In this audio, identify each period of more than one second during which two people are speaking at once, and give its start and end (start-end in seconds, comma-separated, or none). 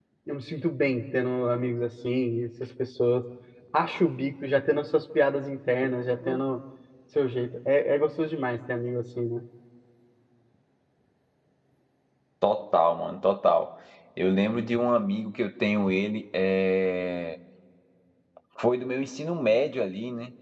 none